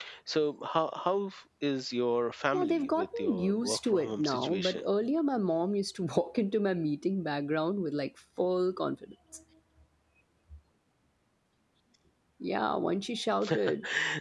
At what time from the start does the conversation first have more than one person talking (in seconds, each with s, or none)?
2.5 s